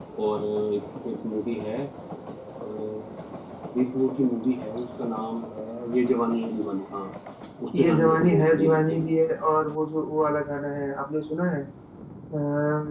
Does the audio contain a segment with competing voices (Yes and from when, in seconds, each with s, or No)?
Yes, from 7.8 s